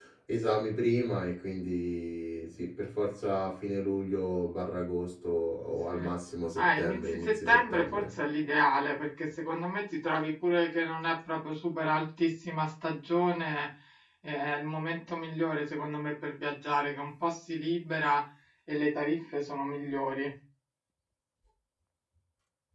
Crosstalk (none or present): present